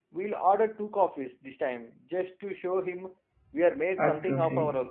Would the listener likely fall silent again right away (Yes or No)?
No